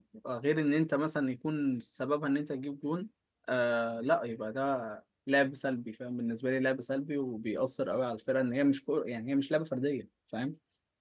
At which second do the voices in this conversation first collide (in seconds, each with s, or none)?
none